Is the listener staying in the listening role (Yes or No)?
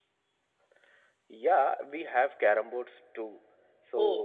Yes